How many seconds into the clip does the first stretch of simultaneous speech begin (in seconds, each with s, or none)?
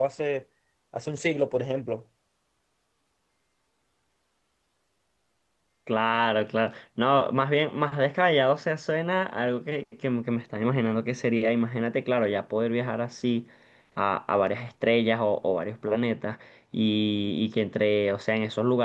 none